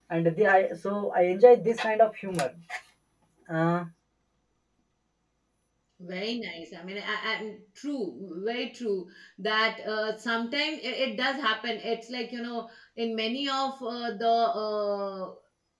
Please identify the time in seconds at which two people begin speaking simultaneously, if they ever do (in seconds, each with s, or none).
none